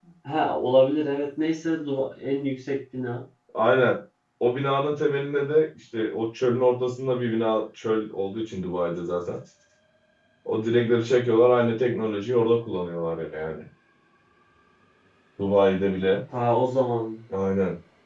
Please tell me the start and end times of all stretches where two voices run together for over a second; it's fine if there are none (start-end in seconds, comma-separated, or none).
none